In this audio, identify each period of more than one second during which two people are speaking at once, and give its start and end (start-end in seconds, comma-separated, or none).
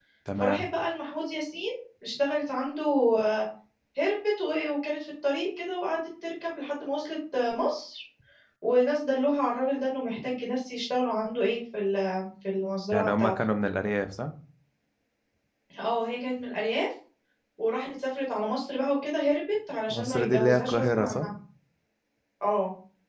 19.9-21.3